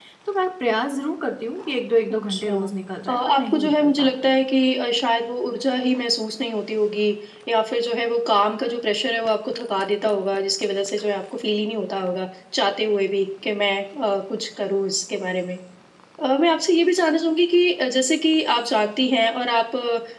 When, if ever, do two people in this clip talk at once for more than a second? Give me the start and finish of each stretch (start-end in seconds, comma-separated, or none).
3.1-4.3